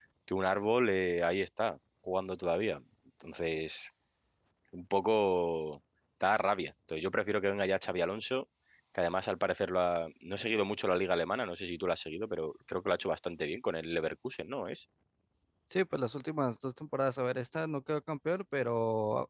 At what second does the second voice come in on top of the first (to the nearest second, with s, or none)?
none